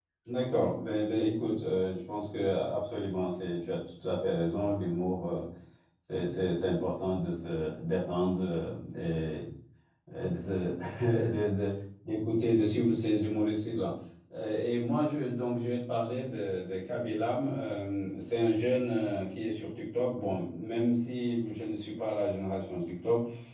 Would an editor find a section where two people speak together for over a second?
No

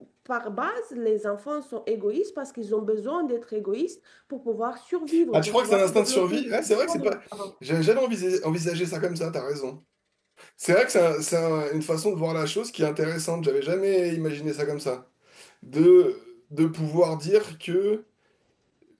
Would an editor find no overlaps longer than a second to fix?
No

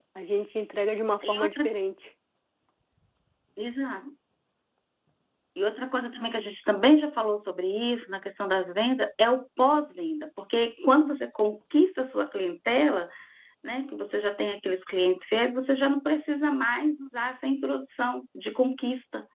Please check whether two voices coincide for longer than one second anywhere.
No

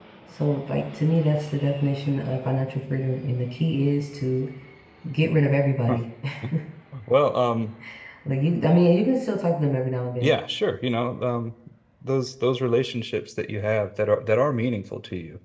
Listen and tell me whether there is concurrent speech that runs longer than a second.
No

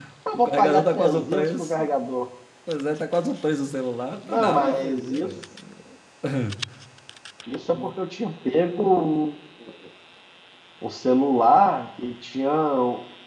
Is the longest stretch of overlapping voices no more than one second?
No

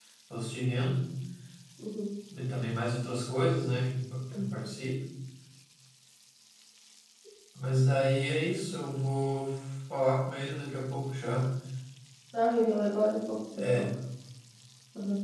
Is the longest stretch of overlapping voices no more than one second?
Yes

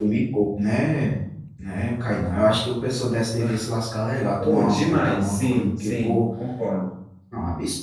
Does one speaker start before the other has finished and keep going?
Yes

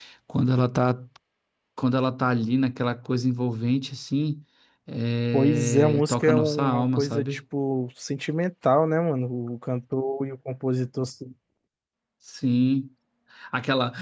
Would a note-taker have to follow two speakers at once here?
Yes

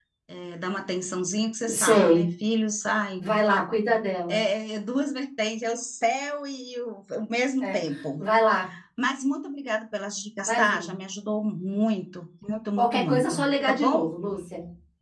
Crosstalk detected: Yes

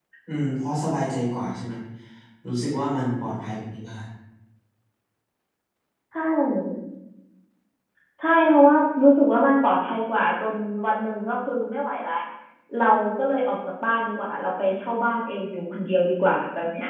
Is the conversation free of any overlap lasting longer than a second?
Yes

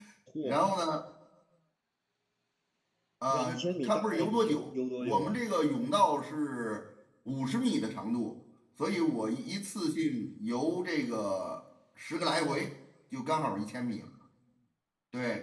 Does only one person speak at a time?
No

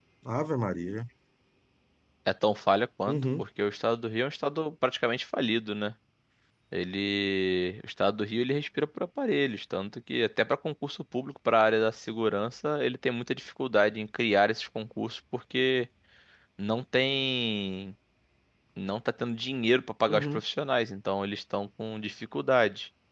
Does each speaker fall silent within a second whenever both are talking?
Yes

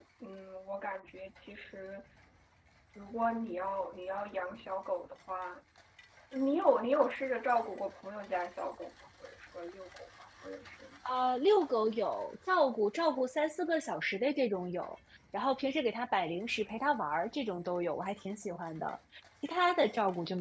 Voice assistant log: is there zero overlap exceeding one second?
Yes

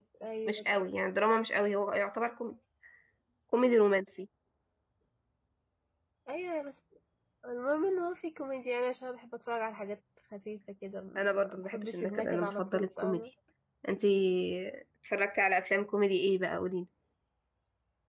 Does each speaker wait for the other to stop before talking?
No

